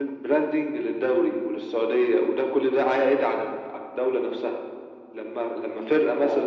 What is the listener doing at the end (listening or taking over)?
listening